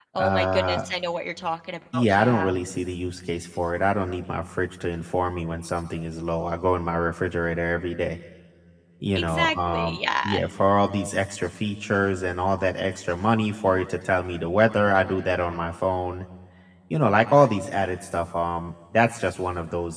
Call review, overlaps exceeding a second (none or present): present